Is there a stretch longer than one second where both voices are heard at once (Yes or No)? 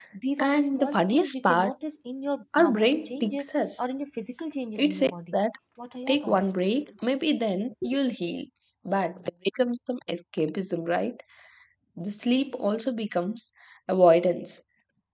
Yes